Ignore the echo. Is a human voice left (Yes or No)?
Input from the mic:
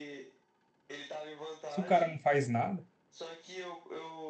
Yes